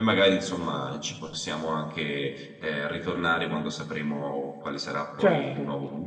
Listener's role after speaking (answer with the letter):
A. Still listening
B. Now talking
B